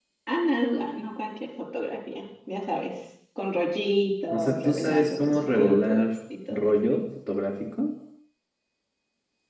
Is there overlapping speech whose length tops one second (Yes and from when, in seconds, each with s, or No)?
Yes, from 4.3 s